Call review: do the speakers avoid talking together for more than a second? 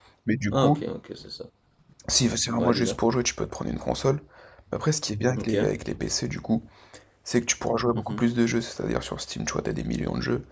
Yes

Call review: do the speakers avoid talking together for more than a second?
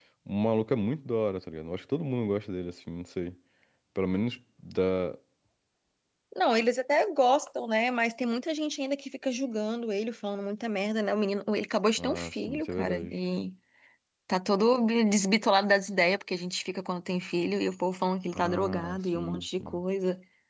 No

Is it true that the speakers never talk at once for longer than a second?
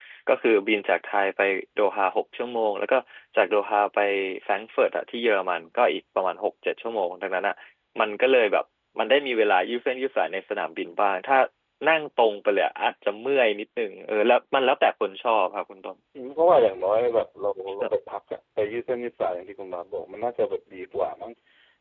Yes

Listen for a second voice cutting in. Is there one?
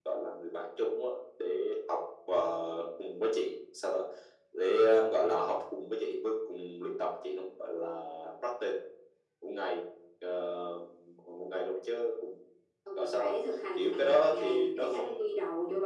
Yes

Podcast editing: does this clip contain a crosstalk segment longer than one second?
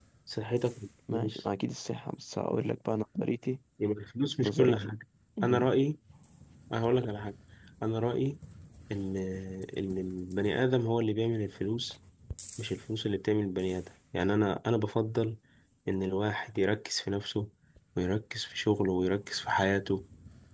No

